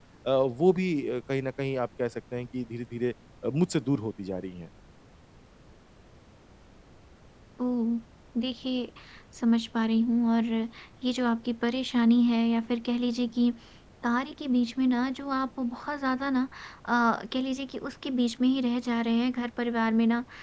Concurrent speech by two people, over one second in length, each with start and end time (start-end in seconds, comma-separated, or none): none